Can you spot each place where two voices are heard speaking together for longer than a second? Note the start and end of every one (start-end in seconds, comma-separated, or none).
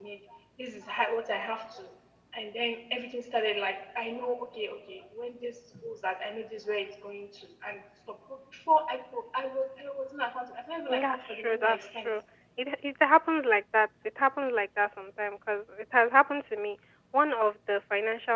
10.9-12.1